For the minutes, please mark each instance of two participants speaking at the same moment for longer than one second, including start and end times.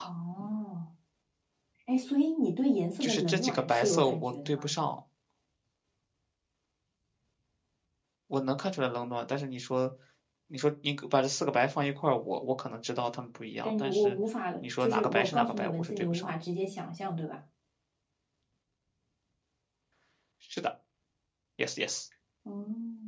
3.0-4.7, 14.8-16.3

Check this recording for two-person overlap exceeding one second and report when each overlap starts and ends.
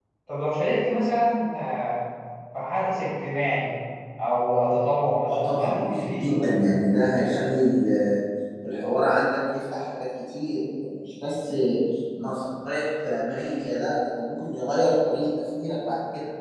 5.3-6.5

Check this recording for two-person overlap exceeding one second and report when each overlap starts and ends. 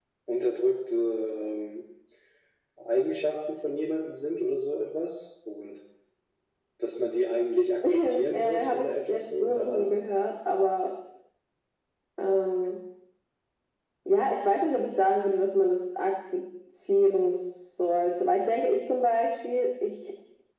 7.8-9.9

